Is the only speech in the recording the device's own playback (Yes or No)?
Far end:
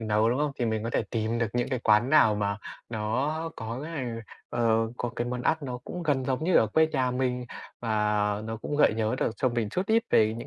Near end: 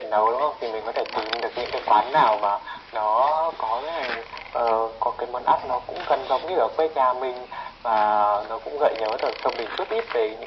Yes